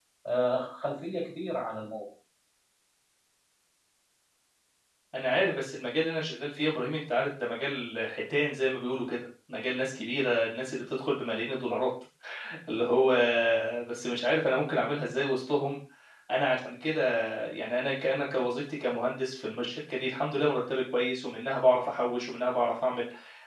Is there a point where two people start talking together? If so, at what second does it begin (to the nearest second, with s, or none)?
none